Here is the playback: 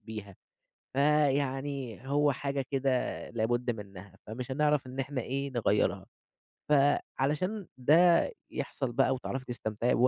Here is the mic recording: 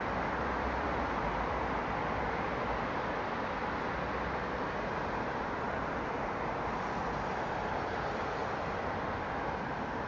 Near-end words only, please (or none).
none